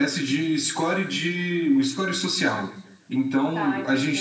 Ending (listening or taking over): listening